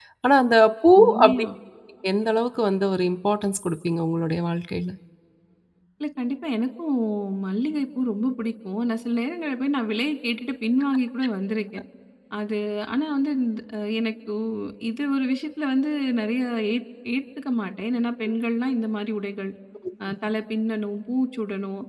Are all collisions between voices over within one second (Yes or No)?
Yes